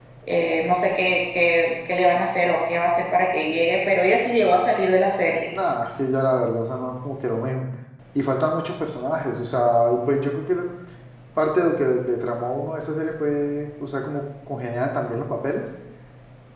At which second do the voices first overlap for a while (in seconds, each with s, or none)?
none